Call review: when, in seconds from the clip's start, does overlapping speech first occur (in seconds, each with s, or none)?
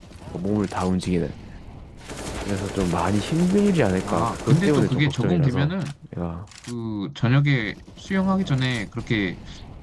4.0 s